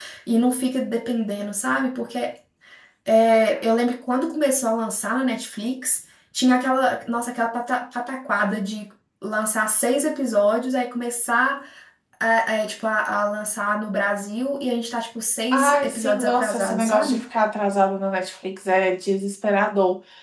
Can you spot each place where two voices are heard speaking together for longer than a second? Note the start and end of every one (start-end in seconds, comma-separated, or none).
15.5-17.2